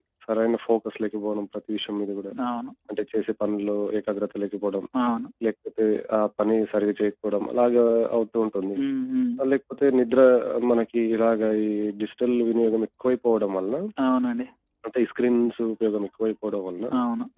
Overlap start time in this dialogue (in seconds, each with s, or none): none